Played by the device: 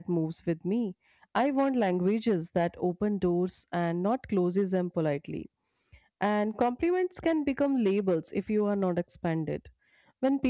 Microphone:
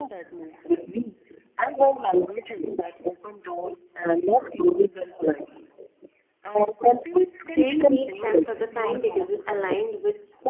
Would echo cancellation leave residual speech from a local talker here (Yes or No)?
Yes